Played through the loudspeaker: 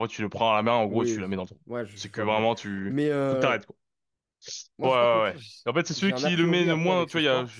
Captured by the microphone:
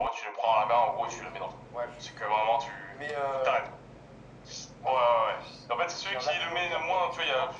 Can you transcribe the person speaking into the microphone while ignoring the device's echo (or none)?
none